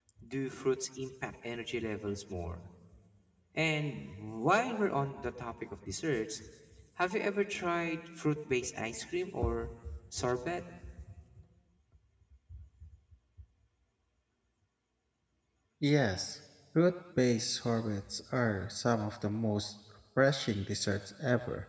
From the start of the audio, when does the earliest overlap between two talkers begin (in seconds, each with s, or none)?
none